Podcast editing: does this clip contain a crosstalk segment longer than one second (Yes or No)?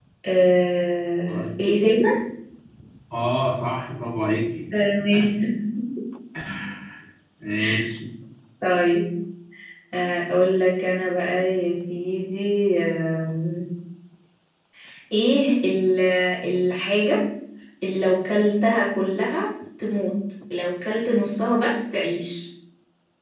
No